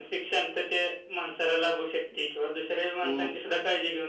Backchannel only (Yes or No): Yes